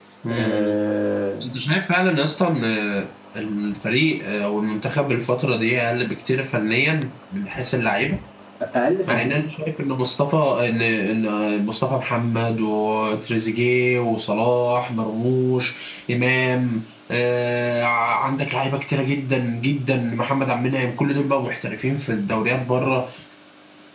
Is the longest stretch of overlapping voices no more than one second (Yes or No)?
Yes